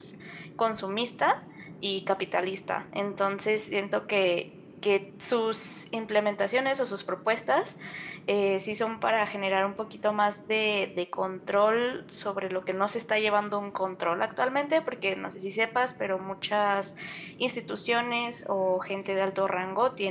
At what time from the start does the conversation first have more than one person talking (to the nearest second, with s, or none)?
none